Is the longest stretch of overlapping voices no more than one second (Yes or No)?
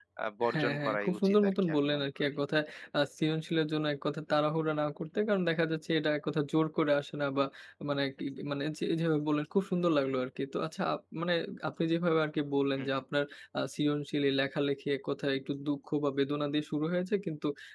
No